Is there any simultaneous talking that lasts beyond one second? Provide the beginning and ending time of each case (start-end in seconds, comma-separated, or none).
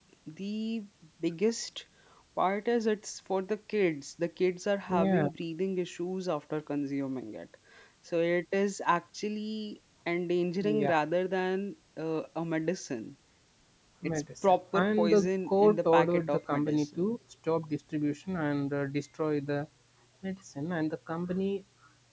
14.1-17.0